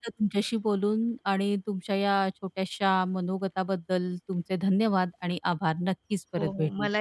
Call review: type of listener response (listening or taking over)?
taking over